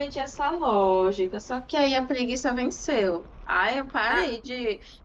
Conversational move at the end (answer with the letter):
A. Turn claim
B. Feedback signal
B